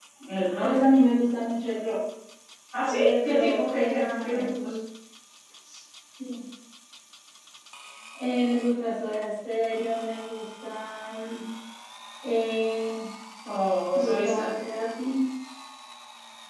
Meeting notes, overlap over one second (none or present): present